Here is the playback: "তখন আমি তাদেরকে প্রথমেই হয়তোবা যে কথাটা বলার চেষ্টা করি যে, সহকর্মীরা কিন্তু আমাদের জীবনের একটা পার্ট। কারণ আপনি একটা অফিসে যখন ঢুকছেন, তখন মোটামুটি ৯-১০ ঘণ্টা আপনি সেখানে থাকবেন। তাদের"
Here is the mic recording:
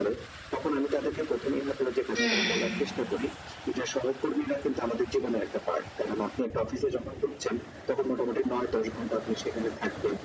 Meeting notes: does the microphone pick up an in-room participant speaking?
Yes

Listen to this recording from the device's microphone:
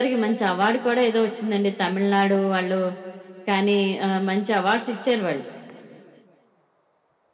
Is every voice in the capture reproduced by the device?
Yes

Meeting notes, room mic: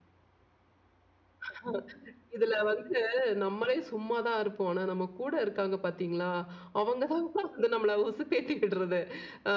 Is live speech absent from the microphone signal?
Yes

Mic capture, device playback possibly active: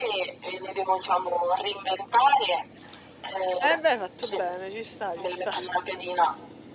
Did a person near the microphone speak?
Yes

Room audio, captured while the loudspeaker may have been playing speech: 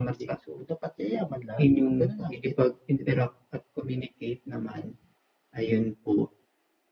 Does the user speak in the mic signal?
No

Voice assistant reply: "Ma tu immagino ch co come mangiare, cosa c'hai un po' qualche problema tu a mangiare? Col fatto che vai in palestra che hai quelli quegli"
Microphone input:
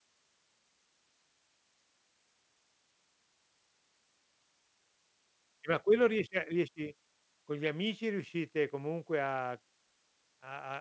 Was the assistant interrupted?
Yes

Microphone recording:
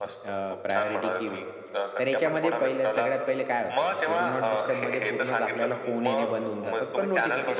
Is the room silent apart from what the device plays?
No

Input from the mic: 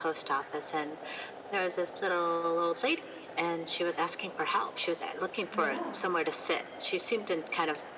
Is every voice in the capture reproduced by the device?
No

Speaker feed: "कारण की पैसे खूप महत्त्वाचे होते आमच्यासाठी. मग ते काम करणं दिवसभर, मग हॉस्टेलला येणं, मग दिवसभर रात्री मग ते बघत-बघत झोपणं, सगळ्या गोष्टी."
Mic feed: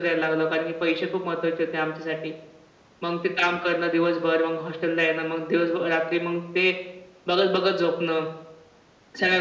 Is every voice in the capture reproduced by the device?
Yes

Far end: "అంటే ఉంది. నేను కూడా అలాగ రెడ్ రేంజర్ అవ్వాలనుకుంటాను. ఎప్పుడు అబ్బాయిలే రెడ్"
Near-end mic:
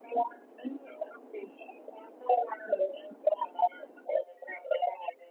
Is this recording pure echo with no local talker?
Yes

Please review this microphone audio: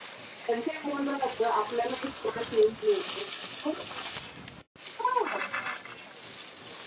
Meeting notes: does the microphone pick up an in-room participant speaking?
No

